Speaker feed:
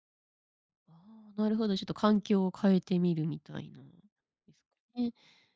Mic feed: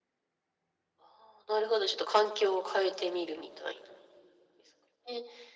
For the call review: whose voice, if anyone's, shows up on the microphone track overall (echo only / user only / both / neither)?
echo only